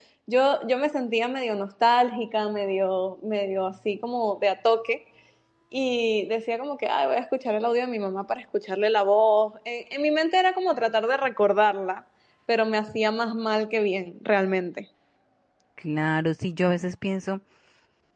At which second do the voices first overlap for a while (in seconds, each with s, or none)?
none